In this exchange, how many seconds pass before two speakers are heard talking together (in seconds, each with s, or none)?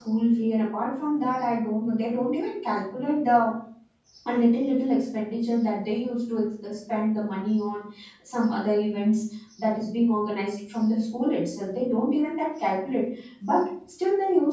none